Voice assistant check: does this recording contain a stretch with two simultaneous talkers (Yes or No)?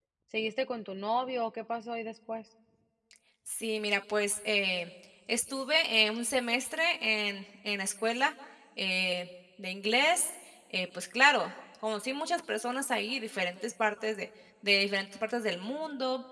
No